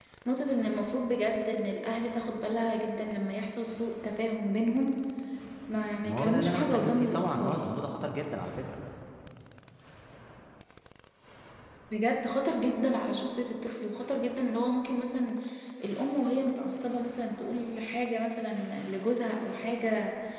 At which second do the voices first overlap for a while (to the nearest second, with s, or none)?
6 s